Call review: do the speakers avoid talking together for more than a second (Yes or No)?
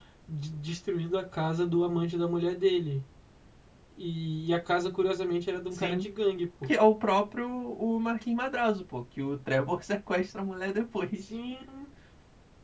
Yes